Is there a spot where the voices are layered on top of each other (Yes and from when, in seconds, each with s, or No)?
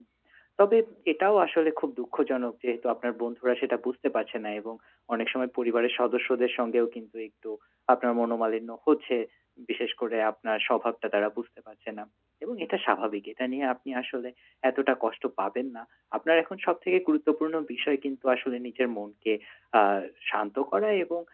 No